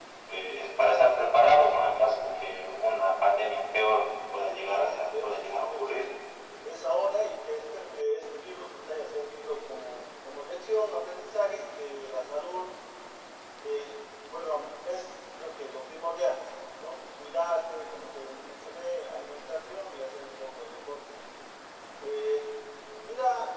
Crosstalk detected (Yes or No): Yes